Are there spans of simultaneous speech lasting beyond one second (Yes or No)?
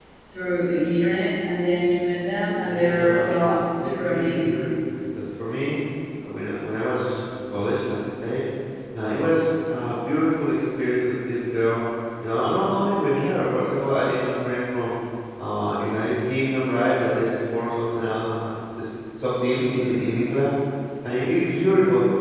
Yes